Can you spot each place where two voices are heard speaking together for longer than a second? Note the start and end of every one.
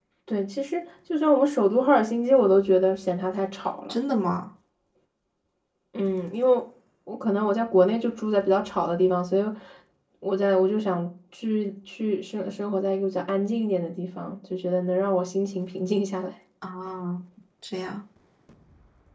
none

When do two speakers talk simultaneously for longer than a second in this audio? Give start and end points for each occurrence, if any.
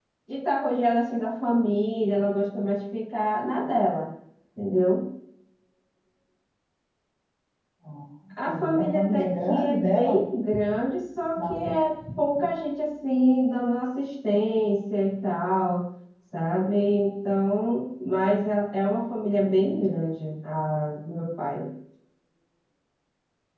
8.5-10.2

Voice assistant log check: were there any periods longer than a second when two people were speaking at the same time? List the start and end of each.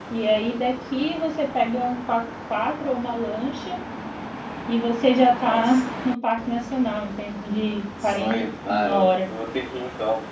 8.0-9.2

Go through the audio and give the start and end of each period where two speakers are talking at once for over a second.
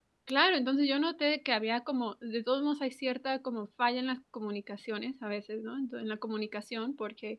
none

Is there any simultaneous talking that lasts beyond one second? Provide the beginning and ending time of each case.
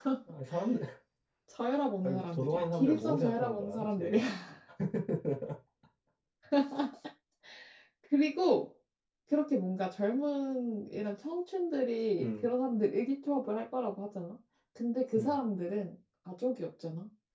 2.0-4.2

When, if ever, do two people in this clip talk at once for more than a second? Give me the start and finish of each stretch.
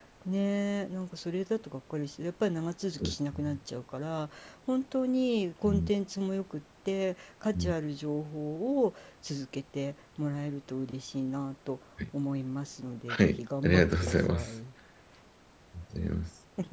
13.1-14.5

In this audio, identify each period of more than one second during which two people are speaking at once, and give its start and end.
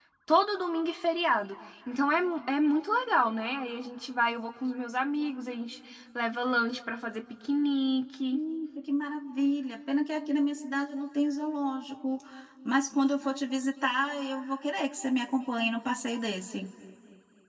none

